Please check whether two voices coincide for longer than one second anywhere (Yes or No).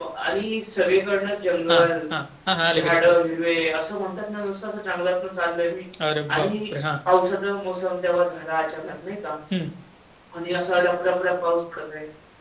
No